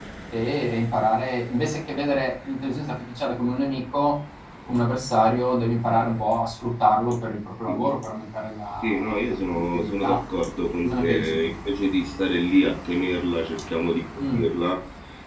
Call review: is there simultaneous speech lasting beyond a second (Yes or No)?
Yes